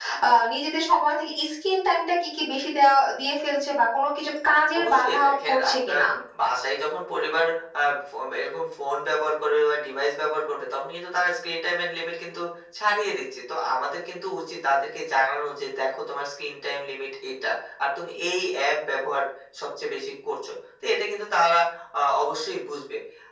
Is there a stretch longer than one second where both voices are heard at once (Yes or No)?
Yes